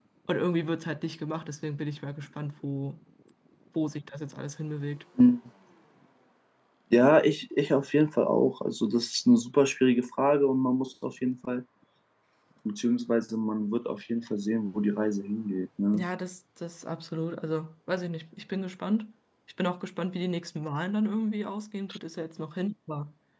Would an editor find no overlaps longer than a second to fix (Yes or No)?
Yes